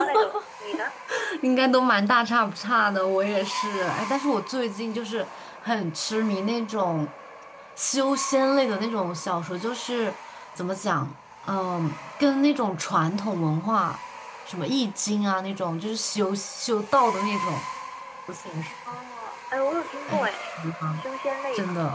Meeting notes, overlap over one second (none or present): none